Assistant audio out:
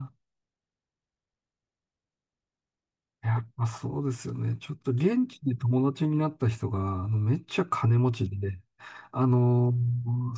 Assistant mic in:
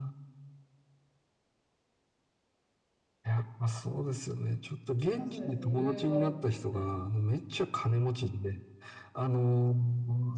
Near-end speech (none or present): present